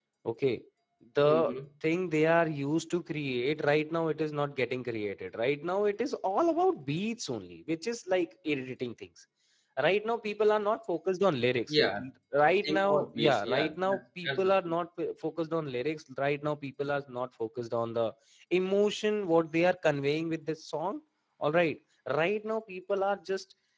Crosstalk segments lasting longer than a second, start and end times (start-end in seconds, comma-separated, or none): 12.4-14.7